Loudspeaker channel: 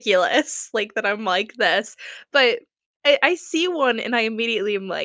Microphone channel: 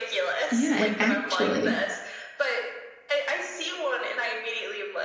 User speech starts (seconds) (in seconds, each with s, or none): 0.5 s